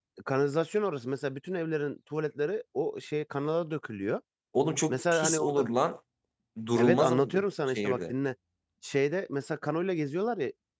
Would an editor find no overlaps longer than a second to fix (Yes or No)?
No